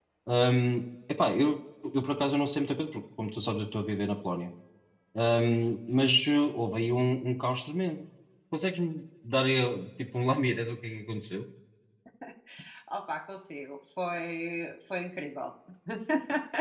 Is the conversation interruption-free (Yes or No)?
Yes